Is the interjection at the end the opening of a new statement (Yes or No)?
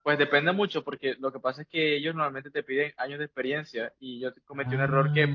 No